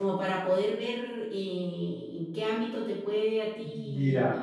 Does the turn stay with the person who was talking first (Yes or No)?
No